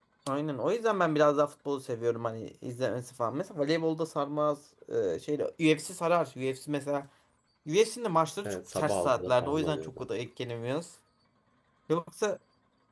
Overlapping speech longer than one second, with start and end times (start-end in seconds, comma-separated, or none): 8.4-9.9